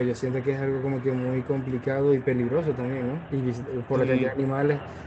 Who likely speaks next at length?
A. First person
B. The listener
A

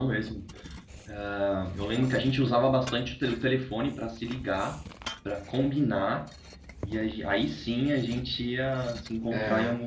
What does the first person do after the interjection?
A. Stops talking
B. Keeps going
B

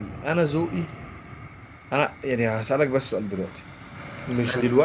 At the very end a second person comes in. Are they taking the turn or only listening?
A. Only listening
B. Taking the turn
A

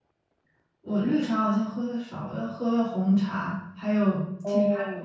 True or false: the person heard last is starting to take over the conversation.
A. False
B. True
A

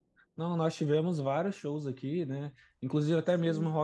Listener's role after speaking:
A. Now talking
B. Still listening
B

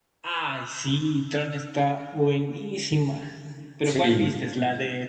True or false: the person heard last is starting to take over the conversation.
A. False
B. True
A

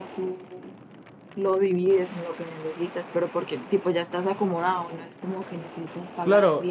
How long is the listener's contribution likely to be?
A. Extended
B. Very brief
A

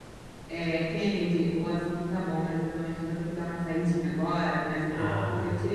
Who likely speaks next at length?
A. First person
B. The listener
A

